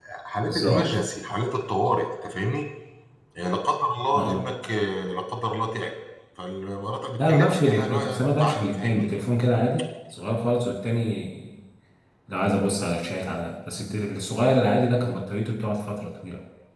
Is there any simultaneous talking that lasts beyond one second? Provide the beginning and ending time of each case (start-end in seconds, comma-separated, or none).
7.2-9.1